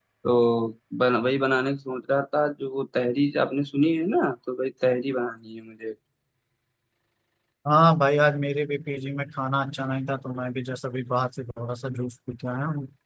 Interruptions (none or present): none